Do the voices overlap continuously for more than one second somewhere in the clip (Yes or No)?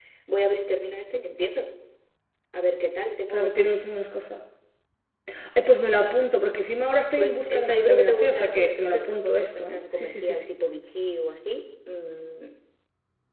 Yes